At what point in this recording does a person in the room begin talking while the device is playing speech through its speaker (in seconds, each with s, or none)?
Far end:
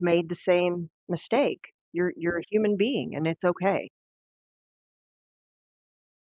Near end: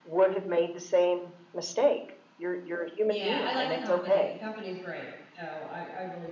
3.1 s